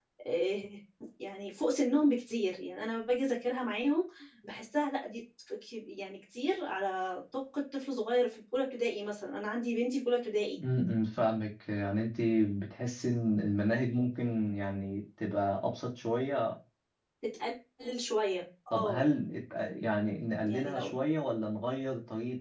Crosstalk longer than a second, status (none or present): none